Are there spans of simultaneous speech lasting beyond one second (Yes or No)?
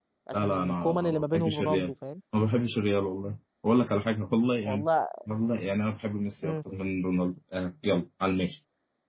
Yes